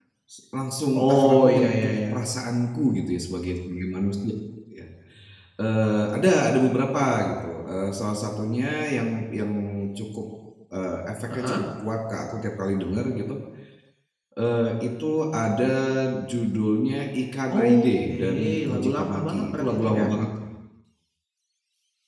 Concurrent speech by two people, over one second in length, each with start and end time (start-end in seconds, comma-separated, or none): 0.9-2.3, 17.5-20.1